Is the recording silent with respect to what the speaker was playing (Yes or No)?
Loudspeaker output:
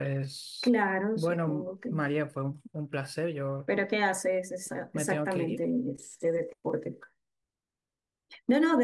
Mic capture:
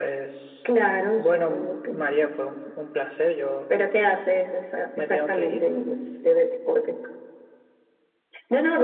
No